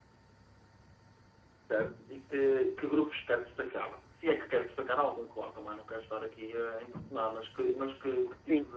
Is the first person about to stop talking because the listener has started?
No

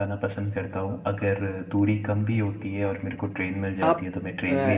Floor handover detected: Yes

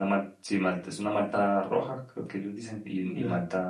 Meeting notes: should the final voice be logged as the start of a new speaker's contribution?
Yes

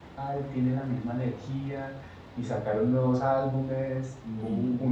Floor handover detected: No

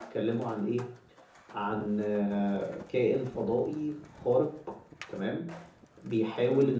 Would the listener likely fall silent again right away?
Yes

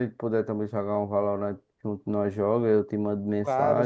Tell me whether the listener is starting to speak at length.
No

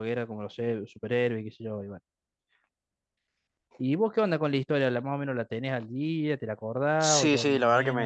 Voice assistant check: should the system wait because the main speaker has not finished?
No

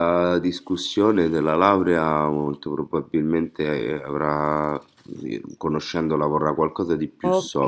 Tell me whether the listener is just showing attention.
No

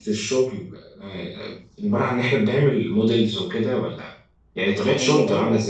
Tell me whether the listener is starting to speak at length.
No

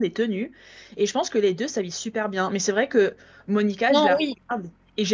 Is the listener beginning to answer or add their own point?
No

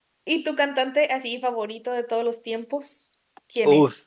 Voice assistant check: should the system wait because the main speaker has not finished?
No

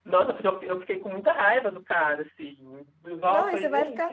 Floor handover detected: Yes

